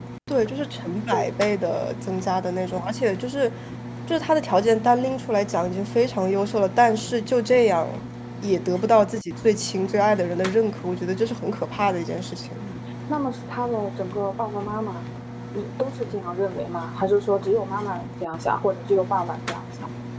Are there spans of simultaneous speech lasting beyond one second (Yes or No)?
No